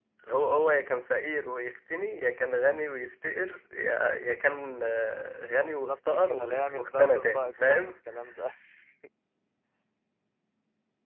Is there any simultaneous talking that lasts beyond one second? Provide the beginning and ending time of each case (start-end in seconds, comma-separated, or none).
5.8-7.9